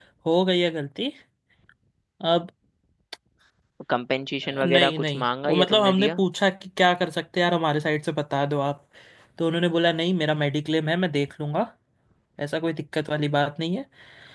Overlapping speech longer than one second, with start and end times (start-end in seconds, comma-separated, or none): 4.4-6.2